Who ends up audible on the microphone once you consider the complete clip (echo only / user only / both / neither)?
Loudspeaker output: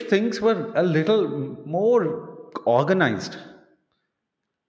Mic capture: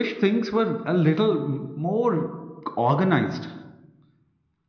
echo only